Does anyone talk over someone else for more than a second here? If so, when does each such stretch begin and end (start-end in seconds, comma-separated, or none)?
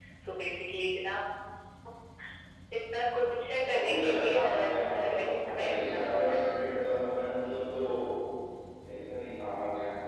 3.6-6.4